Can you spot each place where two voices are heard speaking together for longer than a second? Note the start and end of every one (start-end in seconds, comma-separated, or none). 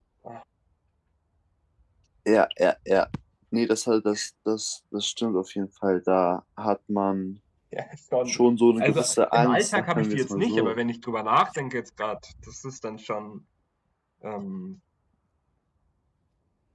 8.8-10.8